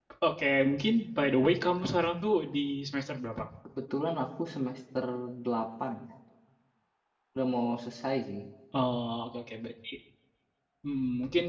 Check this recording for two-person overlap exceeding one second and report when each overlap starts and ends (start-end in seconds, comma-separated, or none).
none